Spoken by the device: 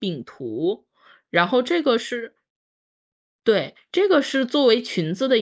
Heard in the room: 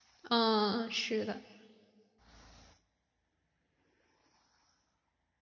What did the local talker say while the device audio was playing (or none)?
嗯，是的。